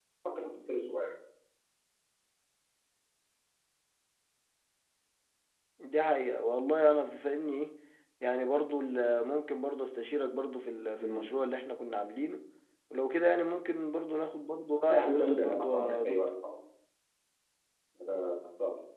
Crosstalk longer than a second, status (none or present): present